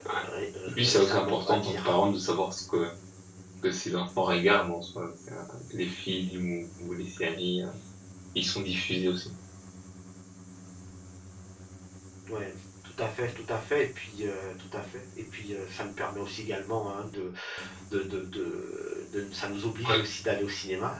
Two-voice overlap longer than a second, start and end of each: 0.7-1.9

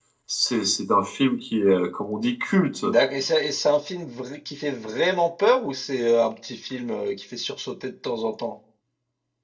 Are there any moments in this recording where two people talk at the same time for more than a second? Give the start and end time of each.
none

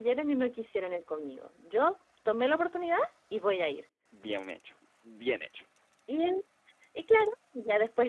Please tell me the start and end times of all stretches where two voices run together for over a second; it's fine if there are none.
none

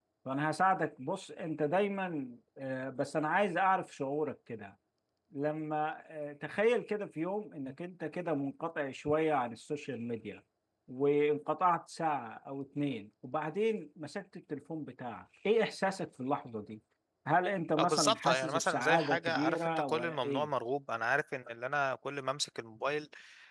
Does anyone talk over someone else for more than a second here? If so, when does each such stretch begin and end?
17.8-20.5

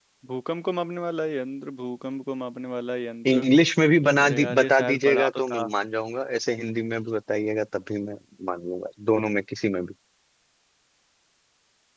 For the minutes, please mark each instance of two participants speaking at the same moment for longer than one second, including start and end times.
4.2-5.7

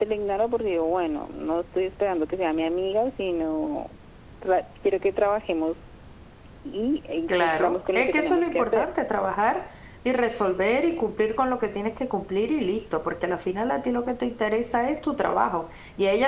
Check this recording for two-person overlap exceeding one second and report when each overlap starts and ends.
7.3-8.9

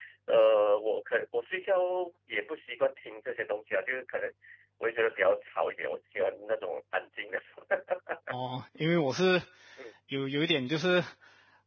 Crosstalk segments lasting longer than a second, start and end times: none

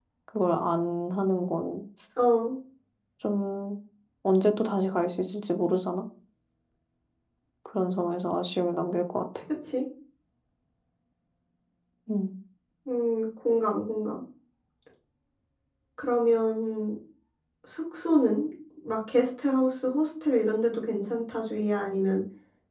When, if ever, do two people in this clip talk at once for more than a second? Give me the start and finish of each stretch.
none

